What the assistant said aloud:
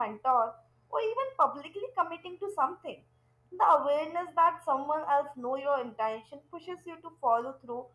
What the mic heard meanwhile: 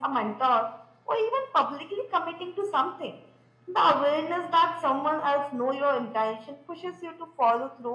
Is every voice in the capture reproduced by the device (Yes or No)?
Yes